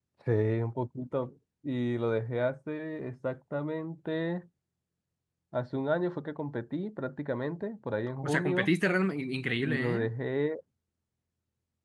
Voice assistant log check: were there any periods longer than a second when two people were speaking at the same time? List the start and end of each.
none

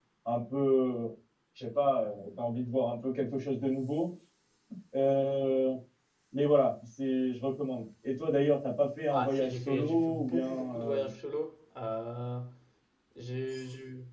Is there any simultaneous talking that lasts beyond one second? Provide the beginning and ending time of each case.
9.1-11.1

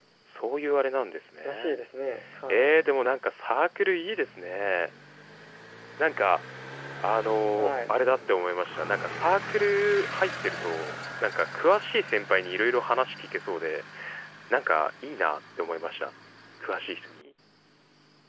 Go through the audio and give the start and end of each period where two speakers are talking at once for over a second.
none

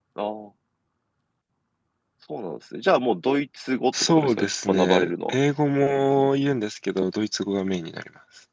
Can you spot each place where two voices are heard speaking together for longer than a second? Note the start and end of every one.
4.0-5.4

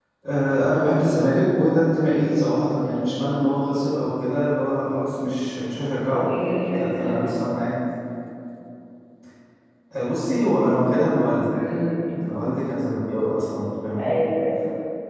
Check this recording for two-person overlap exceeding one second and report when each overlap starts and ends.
none

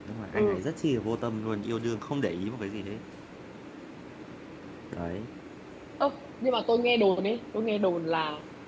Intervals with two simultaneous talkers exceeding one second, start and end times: none

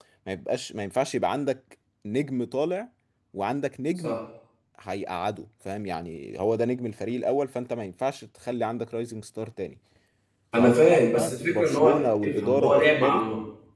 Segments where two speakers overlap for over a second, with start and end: 10.6-13.3

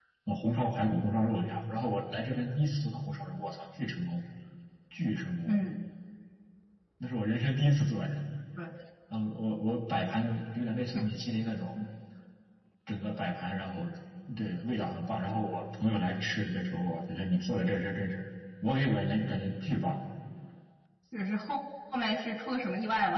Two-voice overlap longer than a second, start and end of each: none

